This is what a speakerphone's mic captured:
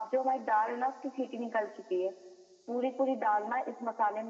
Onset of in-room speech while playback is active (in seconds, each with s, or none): none